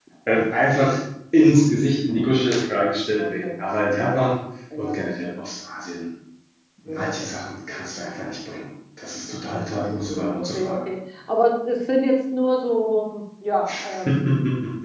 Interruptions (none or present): present